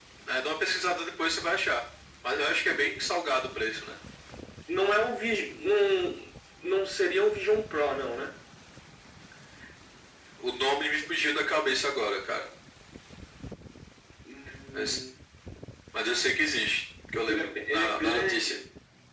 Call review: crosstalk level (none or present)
present